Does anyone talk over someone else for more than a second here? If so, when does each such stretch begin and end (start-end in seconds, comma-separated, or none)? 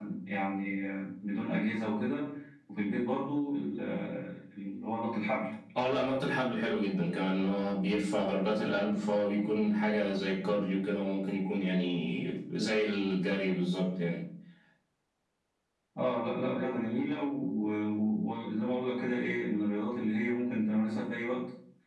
none